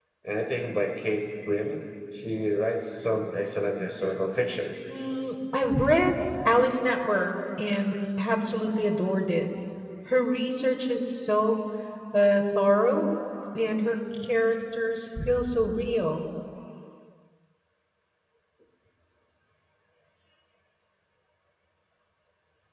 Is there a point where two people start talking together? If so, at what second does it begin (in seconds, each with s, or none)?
none